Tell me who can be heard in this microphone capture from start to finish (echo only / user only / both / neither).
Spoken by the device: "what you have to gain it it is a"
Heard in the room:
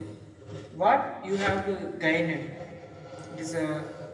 echo only